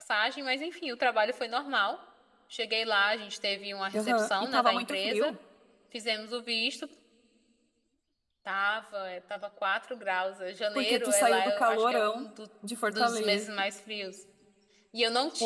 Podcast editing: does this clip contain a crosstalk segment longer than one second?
Yes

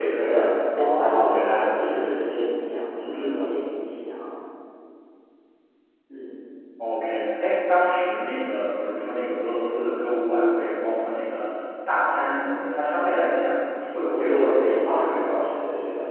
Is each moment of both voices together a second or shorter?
No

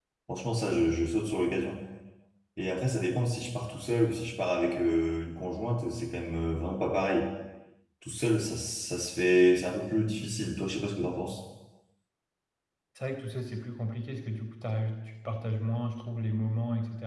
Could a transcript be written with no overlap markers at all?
Yes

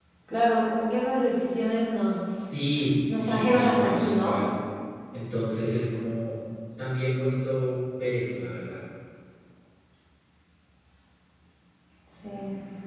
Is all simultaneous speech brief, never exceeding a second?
No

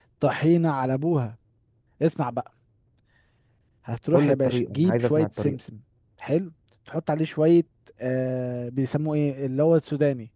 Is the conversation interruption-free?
No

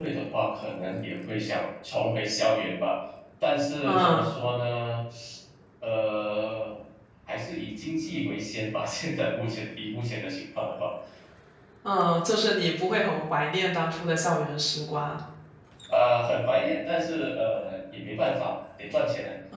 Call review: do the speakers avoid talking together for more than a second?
Yes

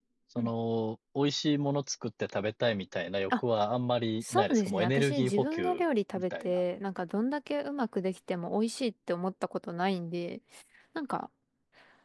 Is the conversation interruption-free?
No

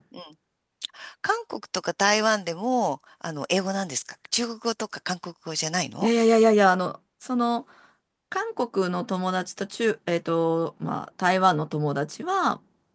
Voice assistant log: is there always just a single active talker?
Yes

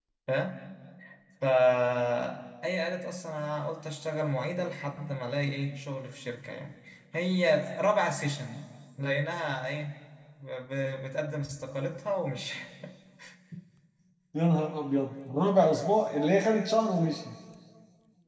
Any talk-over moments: No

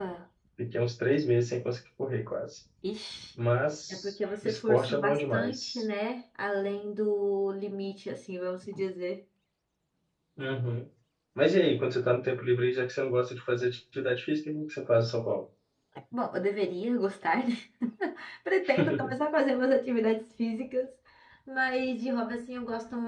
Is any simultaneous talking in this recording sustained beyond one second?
Yes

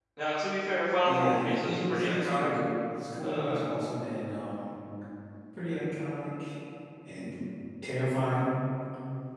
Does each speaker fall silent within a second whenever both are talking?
No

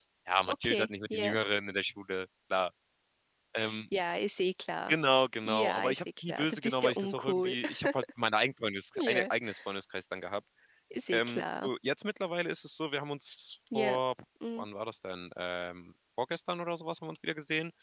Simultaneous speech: Yes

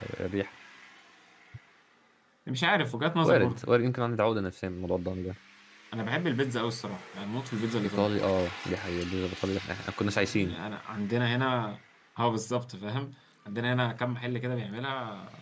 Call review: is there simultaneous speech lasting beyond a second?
No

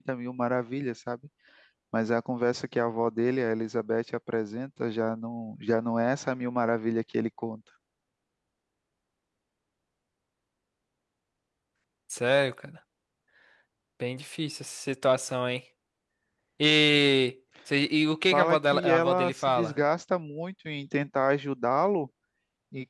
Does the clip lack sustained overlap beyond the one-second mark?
No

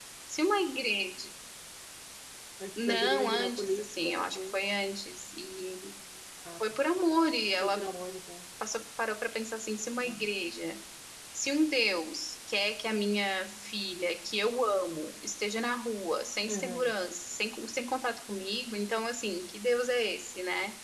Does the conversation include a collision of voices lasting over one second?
Yes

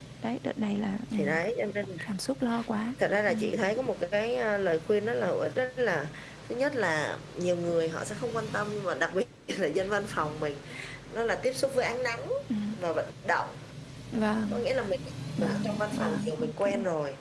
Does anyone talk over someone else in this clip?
Yes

